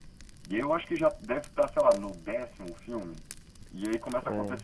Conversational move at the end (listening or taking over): listening